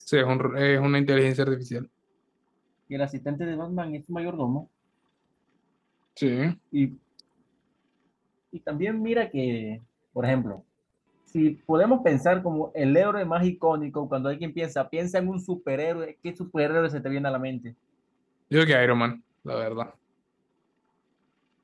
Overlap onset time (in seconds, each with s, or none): none